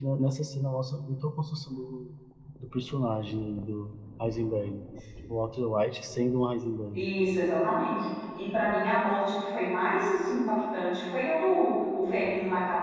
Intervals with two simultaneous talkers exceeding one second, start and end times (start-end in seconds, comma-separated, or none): none